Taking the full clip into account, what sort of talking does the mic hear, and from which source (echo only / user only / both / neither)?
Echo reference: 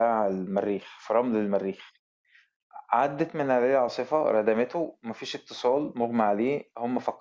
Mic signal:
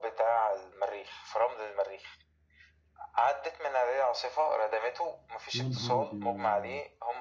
both